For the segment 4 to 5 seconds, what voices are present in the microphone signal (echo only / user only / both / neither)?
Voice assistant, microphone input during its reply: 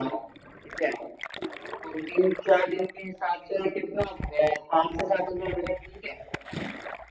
echo only